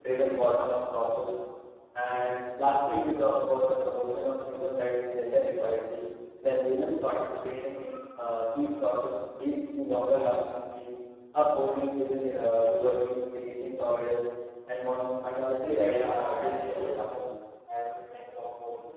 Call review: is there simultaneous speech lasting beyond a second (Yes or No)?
Yes